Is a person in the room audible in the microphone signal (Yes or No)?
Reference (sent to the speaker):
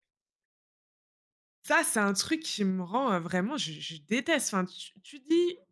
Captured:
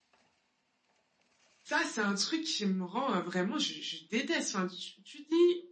No